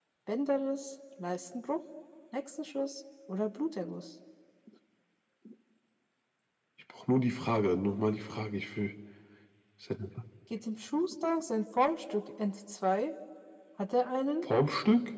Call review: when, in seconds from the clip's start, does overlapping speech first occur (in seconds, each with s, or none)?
none